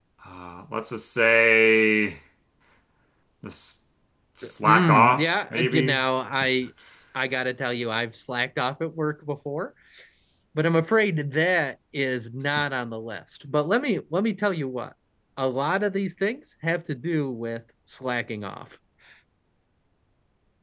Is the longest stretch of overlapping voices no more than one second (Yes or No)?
No